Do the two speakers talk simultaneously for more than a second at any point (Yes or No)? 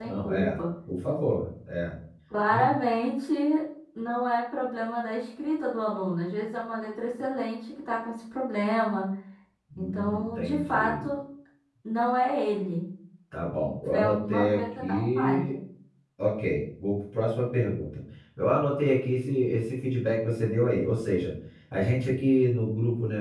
Yes